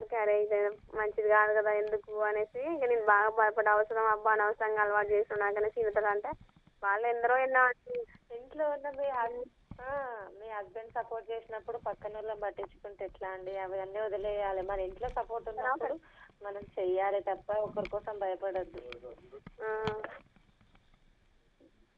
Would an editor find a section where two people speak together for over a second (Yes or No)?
No